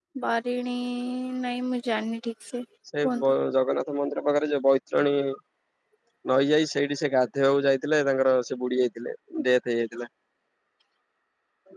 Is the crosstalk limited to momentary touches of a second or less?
Yes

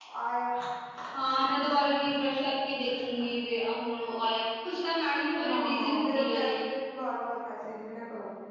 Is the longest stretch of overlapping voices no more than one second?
No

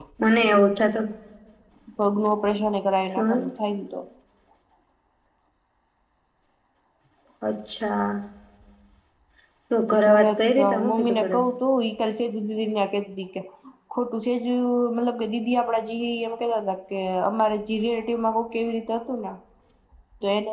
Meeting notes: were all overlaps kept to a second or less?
No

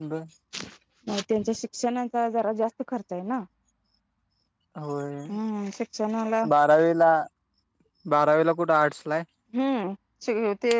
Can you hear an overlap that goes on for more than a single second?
No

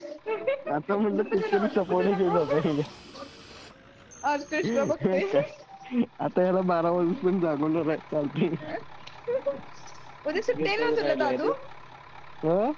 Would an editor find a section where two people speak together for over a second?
Yes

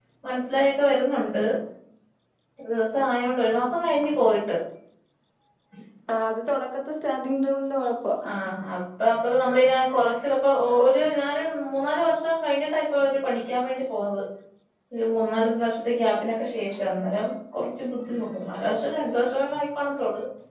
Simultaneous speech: No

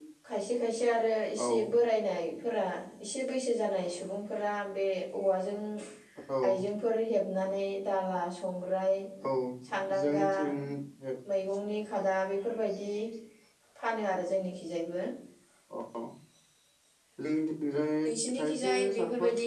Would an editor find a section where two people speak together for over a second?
Yes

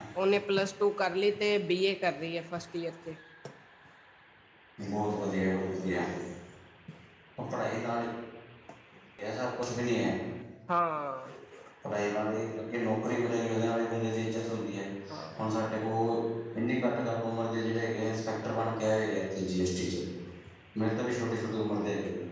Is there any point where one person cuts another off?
No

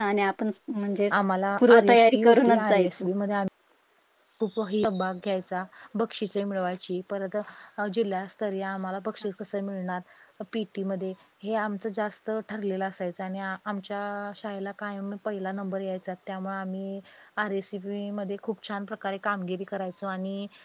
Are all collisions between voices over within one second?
No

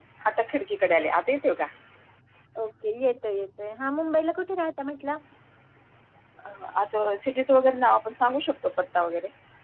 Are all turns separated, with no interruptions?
Yes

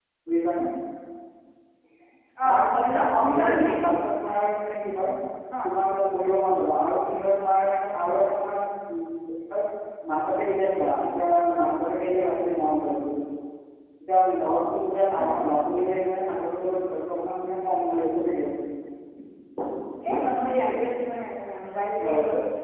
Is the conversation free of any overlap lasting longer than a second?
No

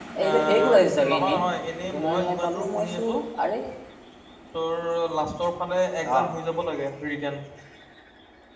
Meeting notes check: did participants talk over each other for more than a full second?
Yes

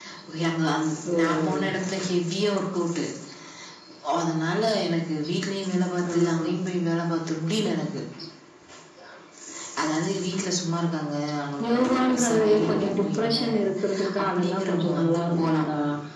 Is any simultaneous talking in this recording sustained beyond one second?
Yes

